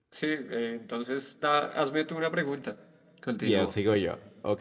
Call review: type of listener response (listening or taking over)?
taking over